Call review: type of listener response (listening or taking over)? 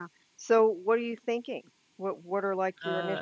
taking over